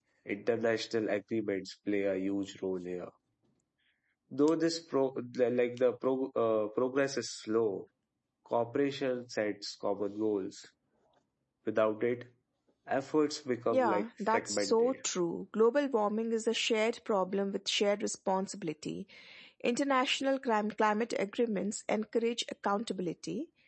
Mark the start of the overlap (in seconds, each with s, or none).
13.7 s